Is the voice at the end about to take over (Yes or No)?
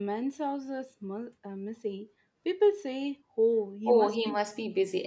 Yes